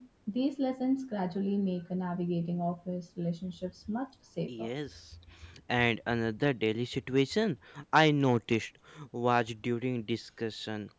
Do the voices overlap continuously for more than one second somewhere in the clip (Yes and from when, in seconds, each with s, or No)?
No